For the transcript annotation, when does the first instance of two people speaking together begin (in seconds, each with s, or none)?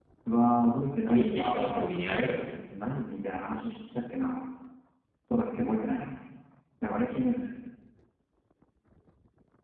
1.0 s